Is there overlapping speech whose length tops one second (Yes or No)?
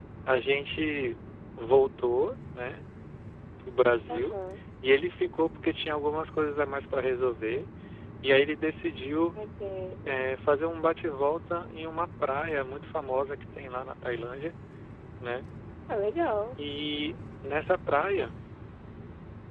No